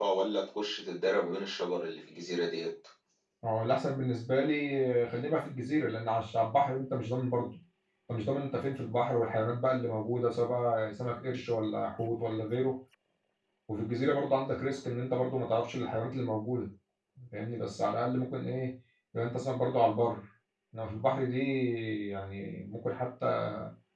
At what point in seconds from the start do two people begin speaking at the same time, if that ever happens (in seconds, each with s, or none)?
none